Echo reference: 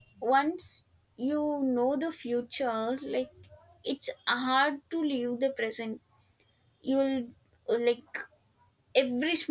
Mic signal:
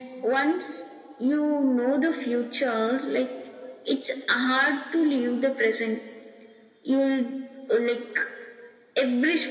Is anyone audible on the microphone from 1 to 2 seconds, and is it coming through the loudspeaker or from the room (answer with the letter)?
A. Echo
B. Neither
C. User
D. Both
A